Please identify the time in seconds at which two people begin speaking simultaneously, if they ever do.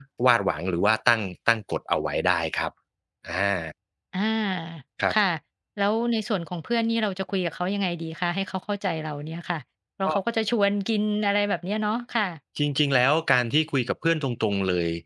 none

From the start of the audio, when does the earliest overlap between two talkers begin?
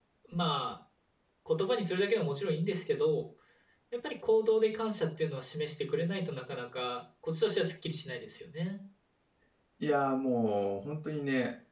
none

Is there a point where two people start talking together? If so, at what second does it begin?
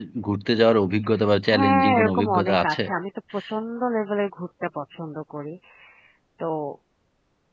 1.5 s

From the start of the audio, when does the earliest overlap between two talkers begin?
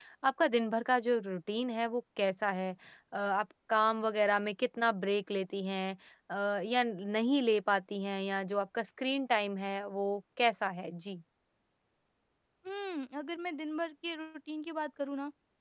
none

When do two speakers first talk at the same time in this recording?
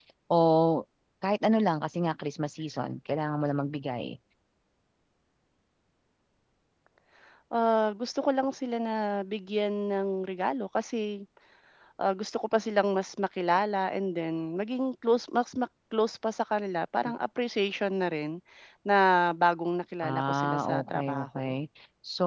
20.0 s

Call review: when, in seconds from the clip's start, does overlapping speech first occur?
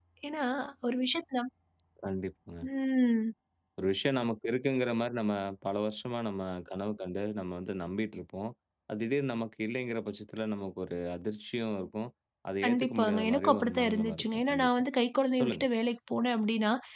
12.6 s

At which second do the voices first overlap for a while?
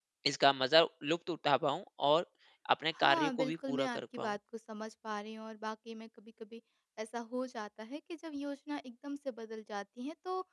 3.0 s

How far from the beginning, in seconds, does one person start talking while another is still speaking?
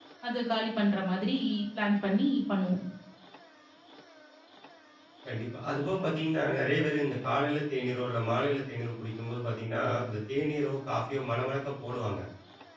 none

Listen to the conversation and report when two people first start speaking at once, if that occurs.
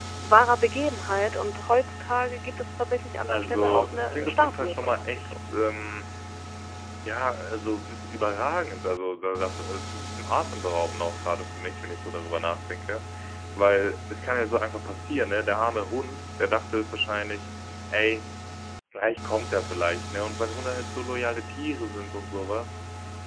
3.3 s

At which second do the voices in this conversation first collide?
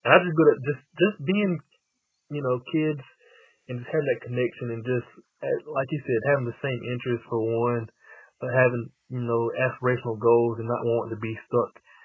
none

